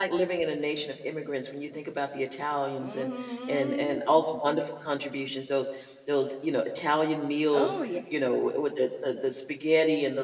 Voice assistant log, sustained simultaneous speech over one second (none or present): none